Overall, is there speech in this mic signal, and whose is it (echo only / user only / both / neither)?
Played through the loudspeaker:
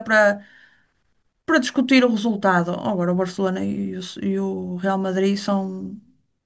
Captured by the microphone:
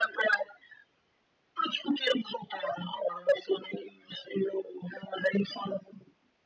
echo only